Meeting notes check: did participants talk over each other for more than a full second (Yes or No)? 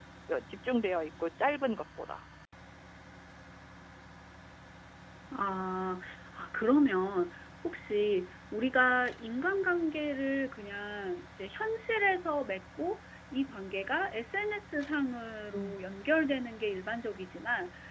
No